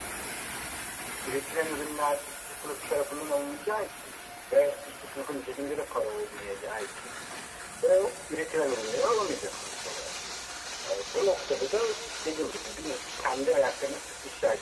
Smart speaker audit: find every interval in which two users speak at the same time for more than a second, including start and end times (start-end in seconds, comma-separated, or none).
none